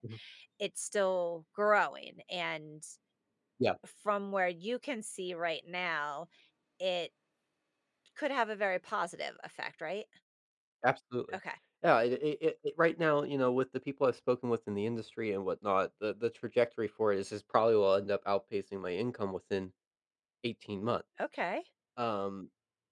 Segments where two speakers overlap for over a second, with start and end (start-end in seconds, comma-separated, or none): none